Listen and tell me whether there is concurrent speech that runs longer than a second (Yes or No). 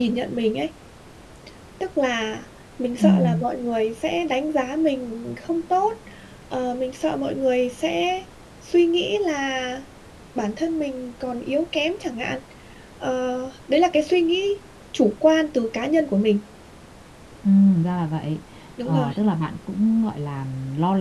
No